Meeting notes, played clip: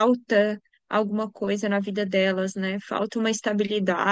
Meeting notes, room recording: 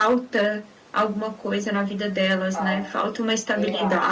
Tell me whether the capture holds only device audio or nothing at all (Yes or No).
No